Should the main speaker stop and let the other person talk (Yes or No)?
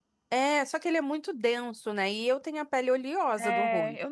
Yes